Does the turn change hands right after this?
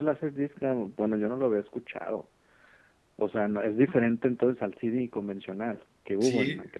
Yes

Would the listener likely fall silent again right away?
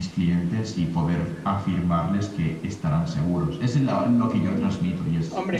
No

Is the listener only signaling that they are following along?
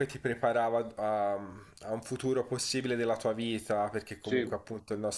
Yes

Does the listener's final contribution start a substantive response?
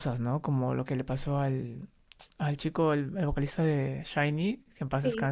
Yes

